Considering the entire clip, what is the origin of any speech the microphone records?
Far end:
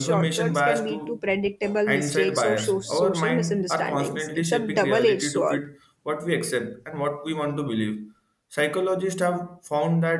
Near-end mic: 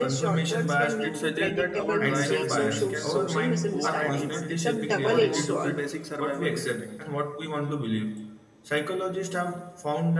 both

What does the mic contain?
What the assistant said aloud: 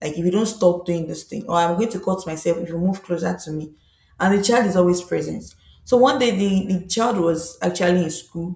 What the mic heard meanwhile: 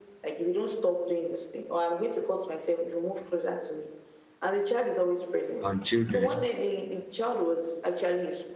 both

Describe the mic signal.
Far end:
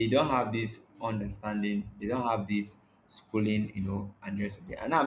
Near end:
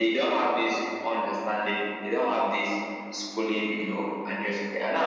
echo only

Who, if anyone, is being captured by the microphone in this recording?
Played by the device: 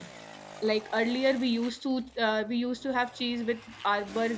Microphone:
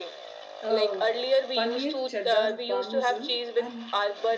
both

